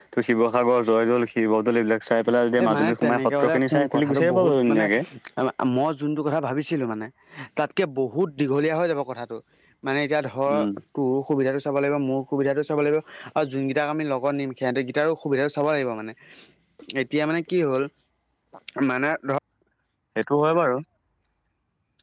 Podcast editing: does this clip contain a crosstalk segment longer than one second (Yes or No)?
Yes